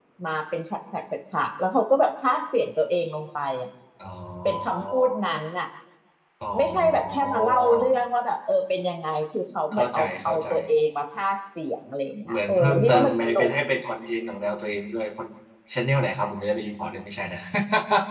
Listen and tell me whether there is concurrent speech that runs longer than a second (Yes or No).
Yes